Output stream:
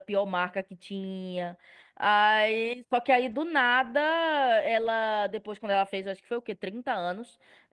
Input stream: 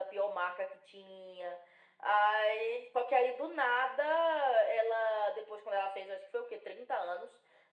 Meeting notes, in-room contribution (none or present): none